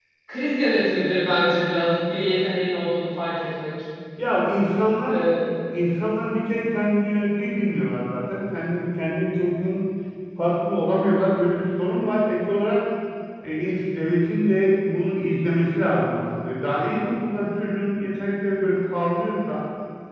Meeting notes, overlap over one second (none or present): none